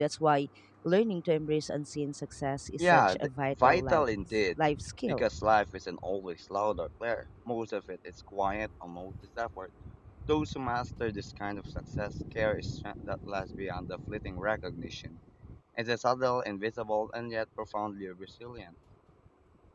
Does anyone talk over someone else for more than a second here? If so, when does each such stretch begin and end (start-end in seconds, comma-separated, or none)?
2.8-4.0